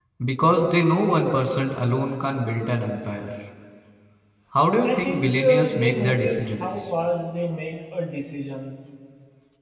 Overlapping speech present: Yes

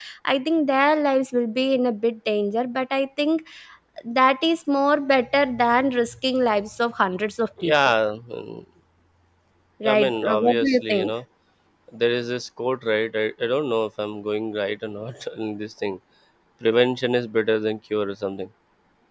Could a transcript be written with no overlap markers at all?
No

